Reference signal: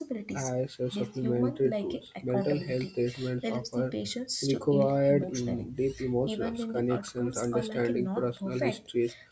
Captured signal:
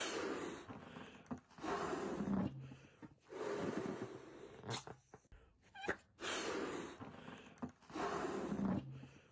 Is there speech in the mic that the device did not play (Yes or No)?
No